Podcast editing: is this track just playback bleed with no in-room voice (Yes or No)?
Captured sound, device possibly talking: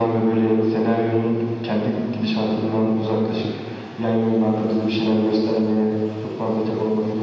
Yes